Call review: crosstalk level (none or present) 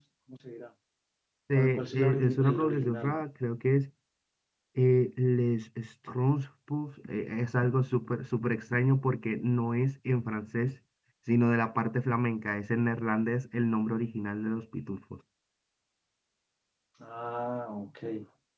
present